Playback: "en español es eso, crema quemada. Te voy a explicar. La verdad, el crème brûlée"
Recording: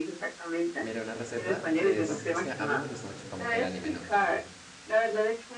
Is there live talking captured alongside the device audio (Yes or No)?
Yes